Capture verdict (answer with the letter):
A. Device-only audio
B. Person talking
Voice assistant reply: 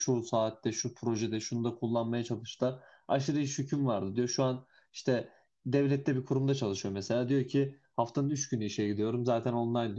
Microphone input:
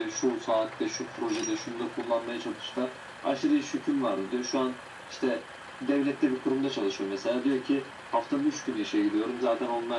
A